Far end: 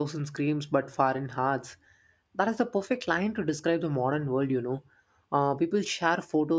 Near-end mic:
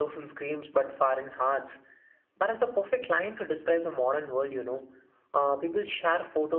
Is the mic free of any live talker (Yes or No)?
Yes